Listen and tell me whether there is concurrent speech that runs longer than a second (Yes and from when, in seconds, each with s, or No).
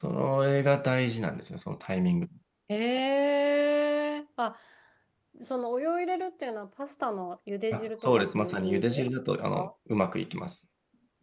Yes, from 7.7 s